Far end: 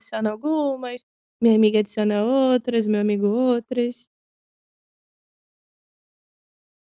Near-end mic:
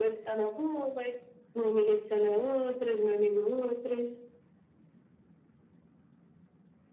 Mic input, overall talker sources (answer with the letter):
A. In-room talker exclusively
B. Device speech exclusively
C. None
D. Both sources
B